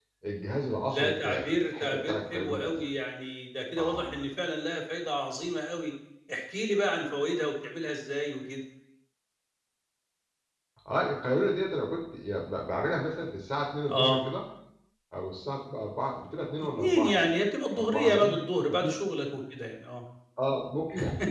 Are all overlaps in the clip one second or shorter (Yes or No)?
No